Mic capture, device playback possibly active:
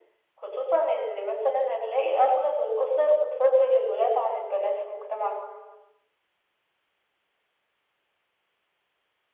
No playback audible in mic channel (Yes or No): No